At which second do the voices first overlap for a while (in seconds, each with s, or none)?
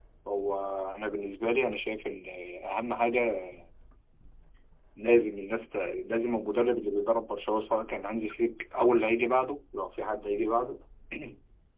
none